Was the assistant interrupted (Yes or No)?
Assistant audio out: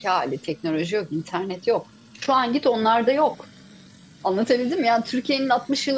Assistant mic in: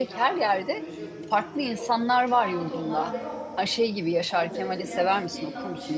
Yes